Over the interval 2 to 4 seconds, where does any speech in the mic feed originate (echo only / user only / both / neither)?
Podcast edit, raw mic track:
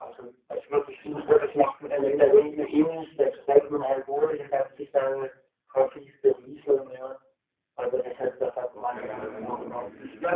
echo only